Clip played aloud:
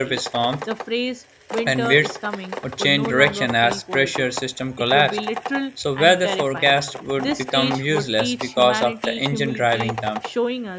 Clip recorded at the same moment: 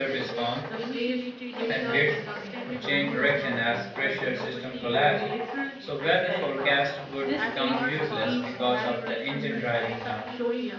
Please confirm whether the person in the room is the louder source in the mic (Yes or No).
No